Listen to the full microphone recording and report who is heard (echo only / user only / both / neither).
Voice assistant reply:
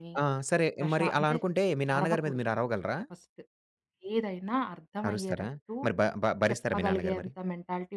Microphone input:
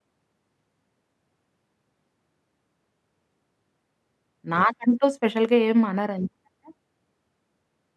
user only